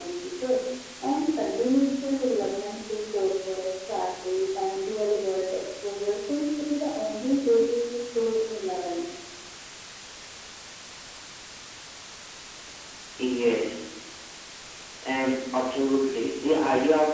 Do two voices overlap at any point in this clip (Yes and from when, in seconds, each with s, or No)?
No